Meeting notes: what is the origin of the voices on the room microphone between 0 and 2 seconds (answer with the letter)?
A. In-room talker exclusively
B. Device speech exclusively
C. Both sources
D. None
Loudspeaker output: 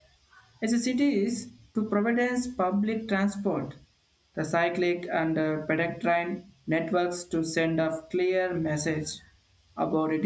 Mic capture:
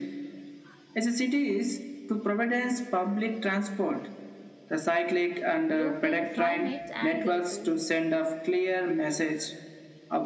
B